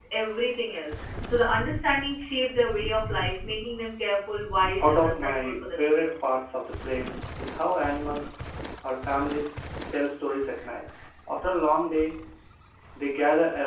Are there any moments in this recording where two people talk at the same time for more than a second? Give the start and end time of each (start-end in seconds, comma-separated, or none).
4.8-6.1